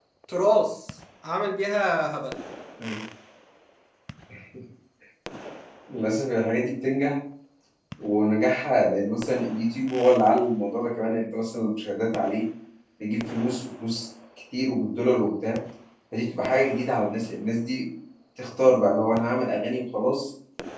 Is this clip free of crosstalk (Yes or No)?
Yes